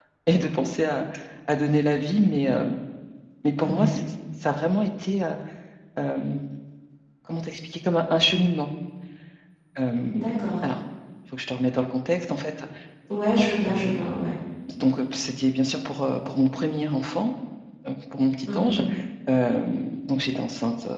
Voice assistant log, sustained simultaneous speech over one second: none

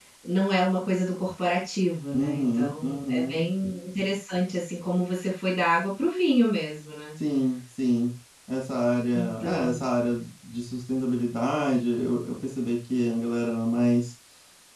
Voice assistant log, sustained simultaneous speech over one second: present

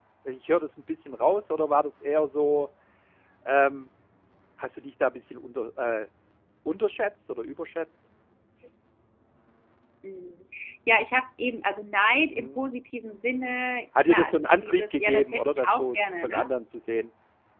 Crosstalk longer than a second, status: present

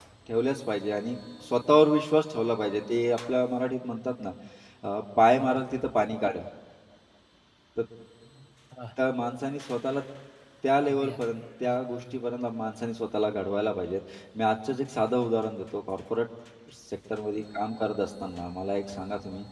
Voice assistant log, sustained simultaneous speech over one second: present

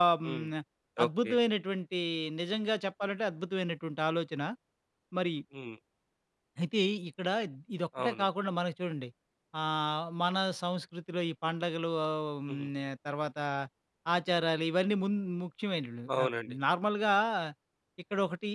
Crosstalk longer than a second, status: none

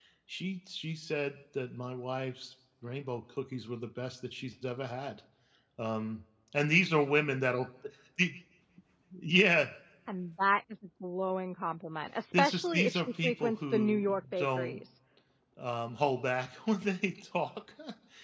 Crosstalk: present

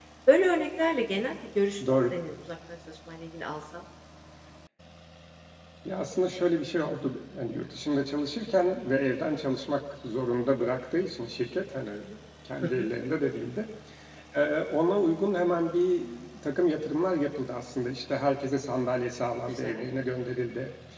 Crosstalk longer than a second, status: none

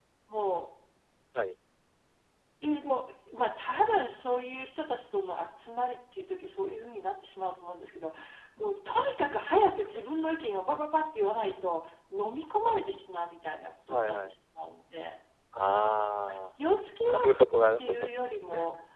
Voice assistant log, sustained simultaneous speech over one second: none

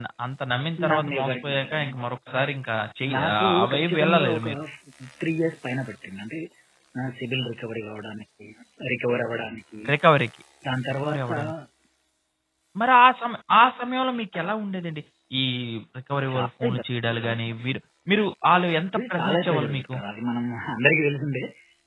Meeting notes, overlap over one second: present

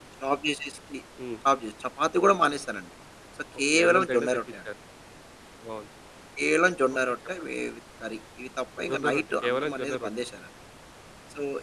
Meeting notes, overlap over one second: present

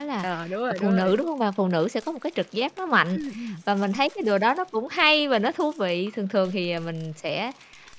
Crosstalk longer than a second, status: none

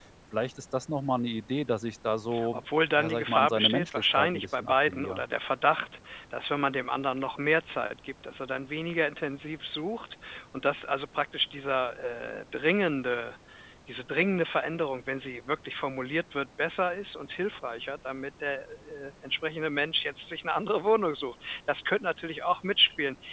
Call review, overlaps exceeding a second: present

